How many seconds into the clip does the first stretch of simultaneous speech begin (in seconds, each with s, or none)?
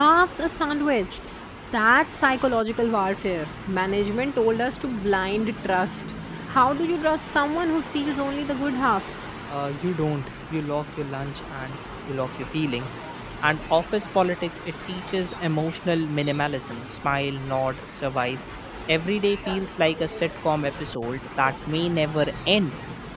none